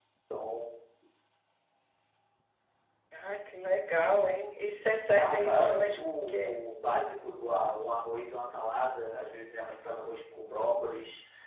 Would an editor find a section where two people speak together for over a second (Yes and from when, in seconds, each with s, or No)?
Yes, from 5.2 s